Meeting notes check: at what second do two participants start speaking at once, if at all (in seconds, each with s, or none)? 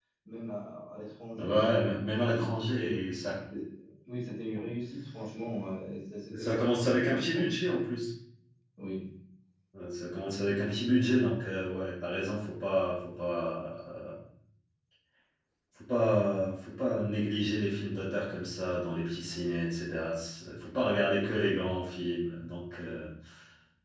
1.4 s